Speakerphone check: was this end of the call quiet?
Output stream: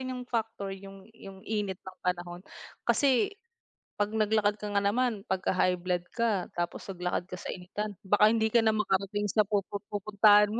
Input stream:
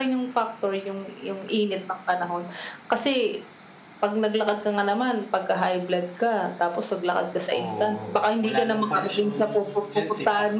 No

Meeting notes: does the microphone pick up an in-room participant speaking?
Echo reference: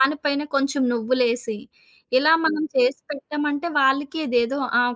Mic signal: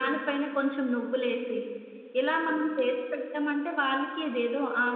No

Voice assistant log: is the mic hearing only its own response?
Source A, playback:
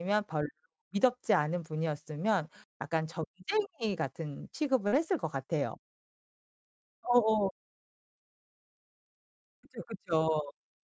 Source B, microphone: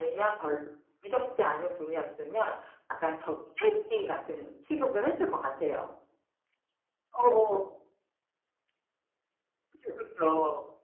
Yes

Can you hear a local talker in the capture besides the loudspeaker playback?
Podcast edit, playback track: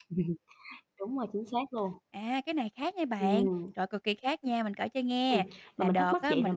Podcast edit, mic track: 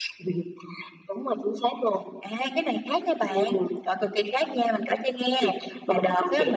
No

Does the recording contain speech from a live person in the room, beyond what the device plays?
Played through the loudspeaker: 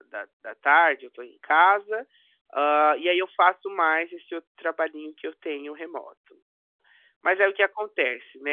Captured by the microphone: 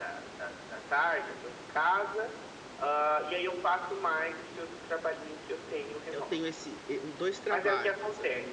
Yes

